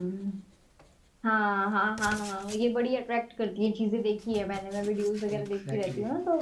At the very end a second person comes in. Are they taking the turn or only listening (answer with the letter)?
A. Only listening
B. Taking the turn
A